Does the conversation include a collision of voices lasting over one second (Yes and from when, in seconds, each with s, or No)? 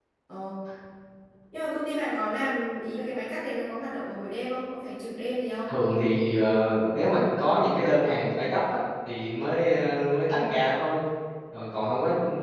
No